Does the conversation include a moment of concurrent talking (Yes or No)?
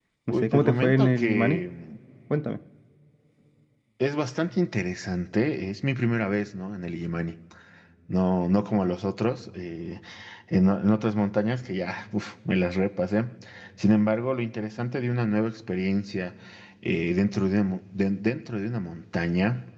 Yes